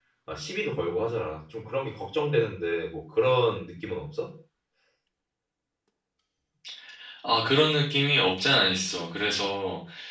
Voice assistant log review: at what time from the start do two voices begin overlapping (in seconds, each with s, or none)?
none